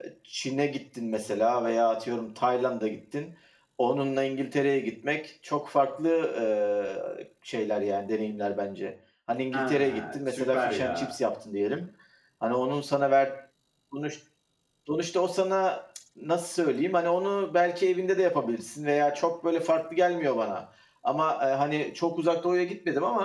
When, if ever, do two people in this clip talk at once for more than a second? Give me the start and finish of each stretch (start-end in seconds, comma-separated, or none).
9.5-11.2